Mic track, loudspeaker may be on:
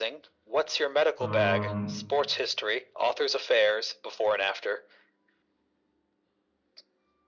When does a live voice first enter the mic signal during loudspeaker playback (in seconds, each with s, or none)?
1.2 s